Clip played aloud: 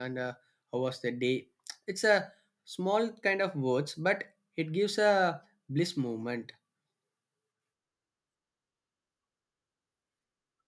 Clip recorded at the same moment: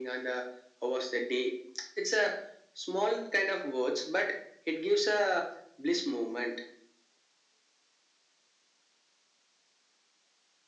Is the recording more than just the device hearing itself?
No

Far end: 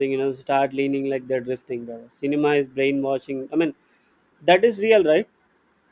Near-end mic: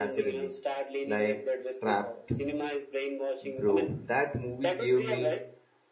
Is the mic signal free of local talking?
No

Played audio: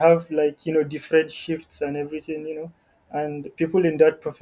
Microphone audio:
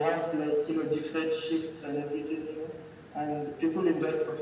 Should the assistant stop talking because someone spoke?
No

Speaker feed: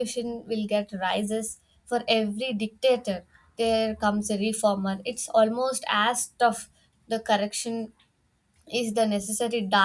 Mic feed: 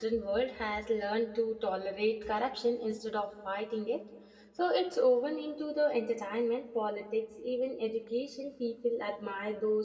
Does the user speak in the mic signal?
Yes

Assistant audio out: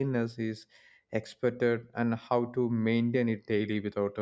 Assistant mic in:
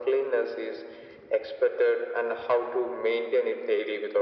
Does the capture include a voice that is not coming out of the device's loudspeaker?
No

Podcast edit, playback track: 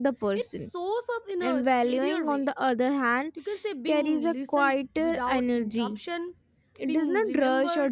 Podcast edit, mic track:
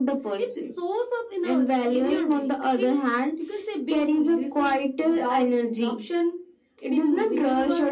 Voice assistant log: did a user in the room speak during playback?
Yes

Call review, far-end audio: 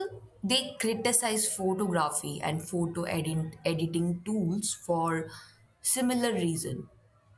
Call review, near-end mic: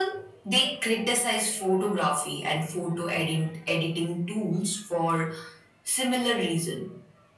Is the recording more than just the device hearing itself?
No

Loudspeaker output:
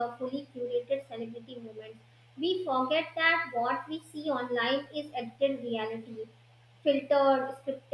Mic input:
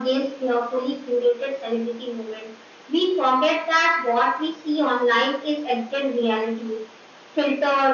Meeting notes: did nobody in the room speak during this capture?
Yes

